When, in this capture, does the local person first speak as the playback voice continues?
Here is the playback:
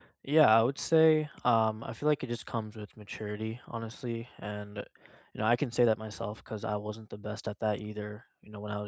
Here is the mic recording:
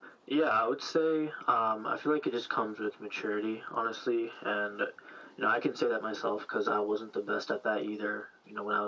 none

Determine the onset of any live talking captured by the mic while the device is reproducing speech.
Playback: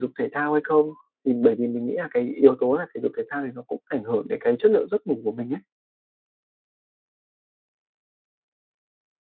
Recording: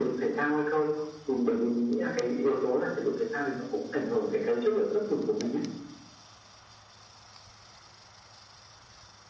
none

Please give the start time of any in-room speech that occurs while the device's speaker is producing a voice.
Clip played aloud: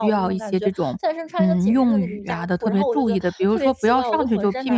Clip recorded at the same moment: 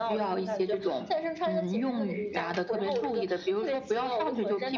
none

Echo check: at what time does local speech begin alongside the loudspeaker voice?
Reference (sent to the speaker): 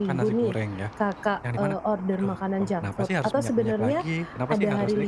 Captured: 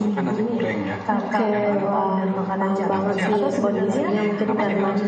1.1 s

